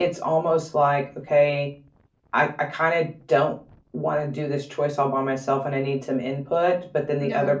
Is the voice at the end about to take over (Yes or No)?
No